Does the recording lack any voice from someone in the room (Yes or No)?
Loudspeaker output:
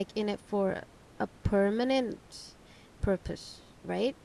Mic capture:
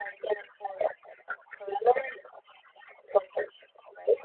Yes